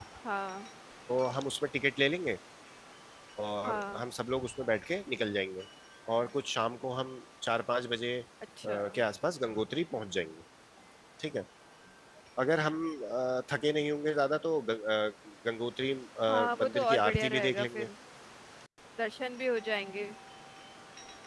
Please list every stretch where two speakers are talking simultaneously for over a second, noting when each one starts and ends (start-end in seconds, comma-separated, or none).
16.3-17.9